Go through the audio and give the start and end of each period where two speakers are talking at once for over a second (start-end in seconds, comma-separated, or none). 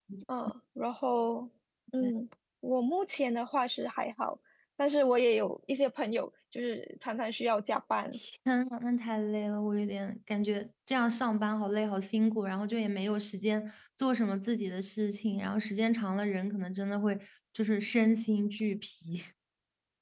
none